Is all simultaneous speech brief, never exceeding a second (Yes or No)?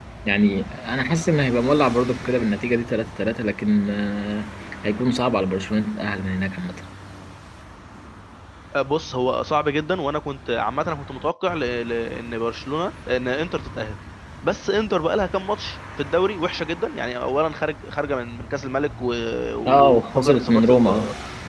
No